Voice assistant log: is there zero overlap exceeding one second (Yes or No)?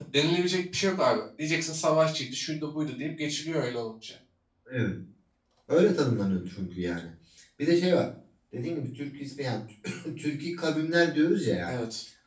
Yes